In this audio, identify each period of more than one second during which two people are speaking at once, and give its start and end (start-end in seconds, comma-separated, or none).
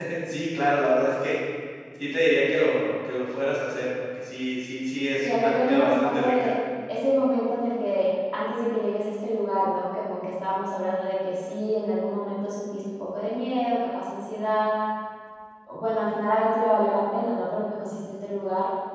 5.2-6.5